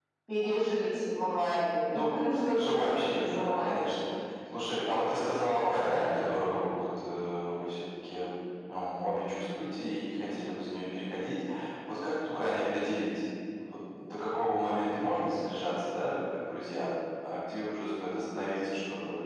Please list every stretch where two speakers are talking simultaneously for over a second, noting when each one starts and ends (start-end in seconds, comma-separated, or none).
2.5-3.8